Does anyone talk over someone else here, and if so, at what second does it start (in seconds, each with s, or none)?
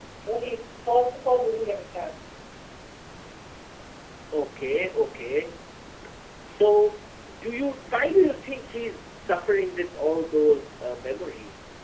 none